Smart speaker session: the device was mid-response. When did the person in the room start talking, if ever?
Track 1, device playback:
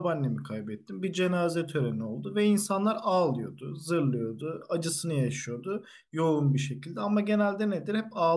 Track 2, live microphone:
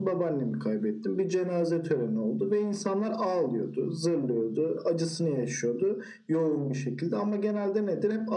none

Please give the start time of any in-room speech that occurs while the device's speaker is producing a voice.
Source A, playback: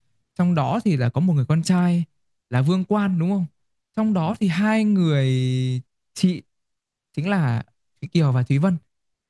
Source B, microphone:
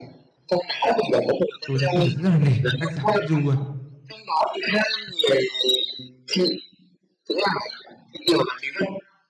1.7 s

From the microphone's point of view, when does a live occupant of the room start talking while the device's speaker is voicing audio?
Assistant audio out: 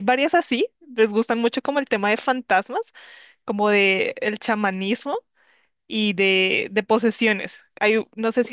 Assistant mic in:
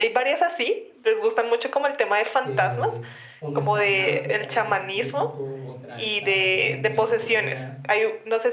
2.4 s

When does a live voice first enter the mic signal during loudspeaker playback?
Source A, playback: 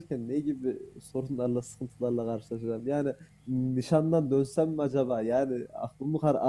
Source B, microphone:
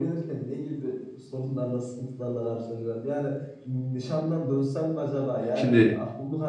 5.5 s

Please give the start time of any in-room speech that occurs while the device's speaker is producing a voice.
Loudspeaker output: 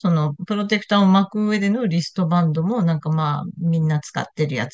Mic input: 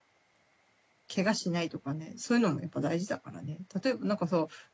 1.1 s

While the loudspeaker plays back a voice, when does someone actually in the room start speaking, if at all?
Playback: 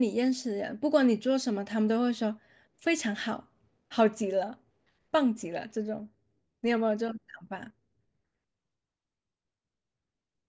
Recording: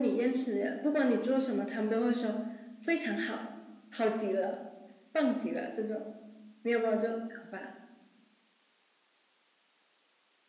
none

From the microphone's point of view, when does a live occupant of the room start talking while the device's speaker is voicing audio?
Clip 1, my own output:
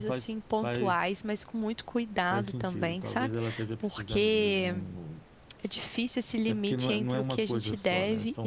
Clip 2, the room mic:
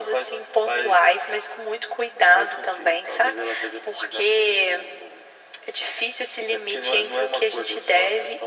none

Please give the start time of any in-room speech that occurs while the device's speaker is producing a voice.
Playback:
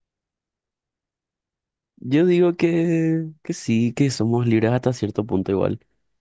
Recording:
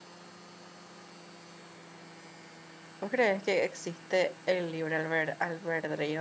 3.0 s

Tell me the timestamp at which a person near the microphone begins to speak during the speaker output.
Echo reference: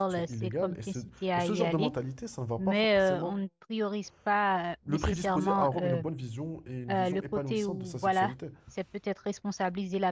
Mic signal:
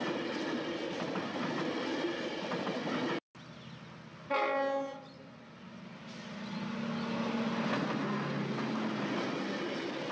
none

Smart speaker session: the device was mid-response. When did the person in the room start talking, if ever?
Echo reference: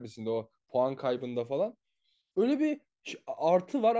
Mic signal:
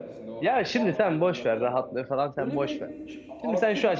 0.4 s

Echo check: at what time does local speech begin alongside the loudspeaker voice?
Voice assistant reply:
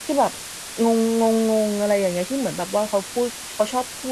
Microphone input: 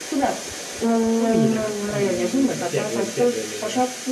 1.2 s

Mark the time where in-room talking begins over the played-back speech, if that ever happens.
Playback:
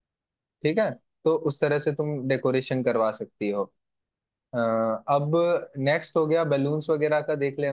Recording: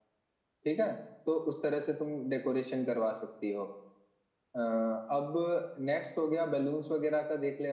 none

